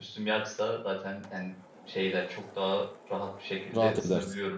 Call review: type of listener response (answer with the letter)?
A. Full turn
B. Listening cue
A